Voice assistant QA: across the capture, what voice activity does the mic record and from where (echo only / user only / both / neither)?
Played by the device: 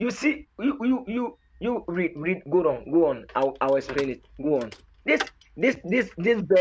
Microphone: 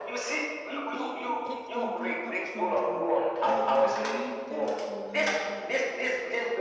both